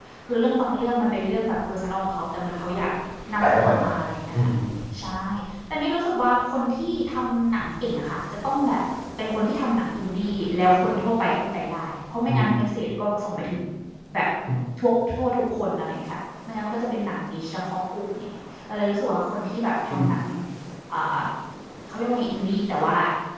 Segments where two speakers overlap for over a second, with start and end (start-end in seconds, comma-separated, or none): none